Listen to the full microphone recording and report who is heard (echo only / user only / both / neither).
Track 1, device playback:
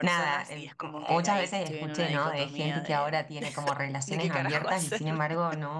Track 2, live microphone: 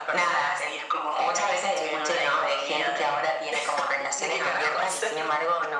echo only